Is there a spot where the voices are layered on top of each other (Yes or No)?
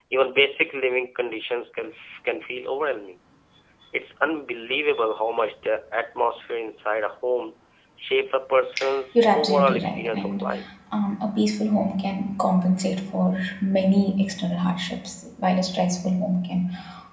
Yes